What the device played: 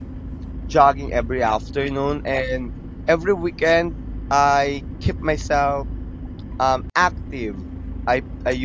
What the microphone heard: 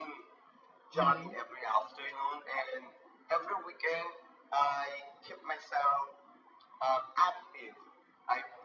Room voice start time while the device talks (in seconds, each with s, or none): 0.9 s